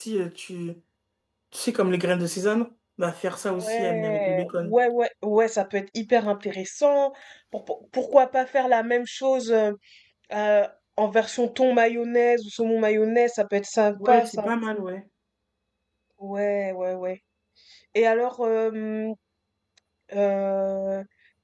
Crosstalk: present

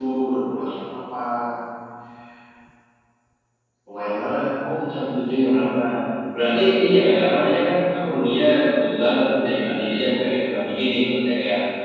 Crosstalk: none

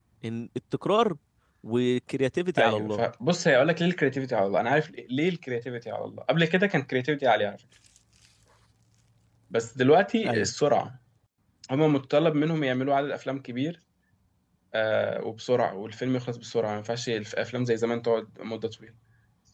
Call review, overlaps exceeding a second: none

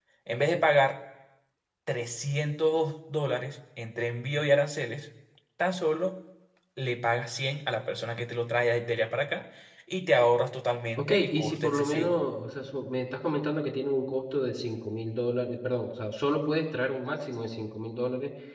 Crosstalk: present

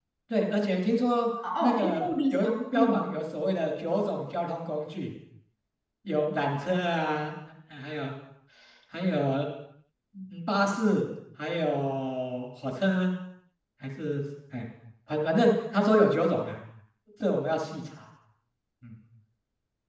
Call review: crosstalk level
present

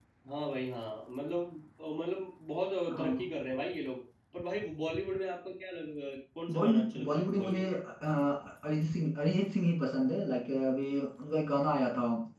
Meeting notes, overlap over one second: present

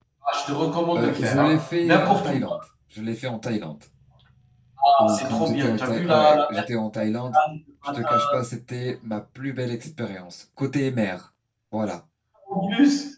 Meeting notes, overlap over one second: present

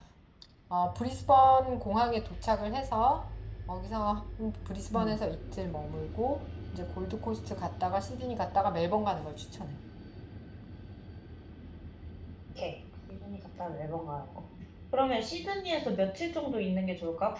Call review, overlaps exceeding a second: none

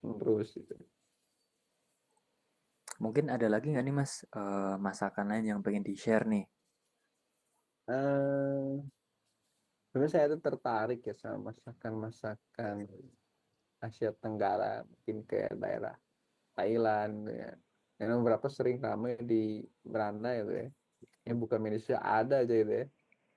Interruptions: none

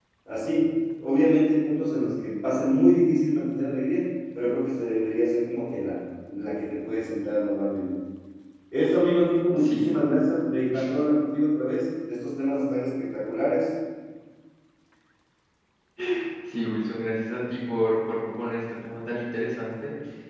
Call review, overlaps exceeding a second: none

